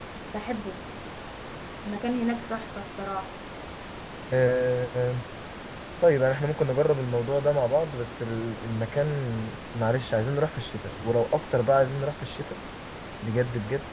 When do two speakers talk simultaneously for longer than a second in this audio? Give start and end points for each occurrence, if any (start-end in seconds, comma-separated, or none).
none